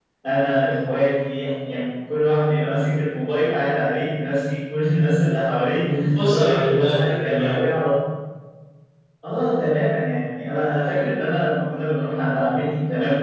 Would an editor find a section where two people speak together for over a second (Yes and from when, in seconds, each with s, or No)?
Yes, from 6.2 s